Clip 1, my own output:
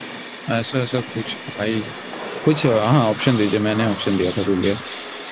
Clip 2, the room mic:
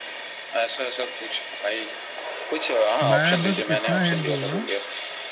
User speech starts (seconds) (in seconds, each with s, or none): 3.1 s